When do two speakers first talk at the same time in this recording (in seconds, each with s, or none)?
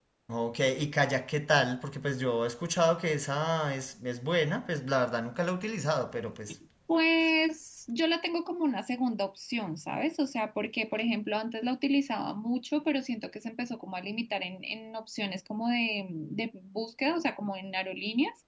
none